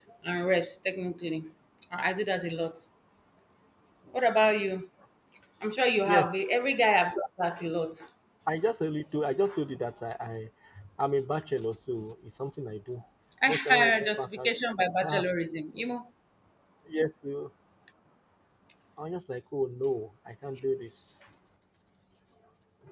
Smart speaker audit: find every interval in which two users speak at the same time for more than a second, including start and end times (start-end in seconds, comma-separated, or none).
13.5-15.2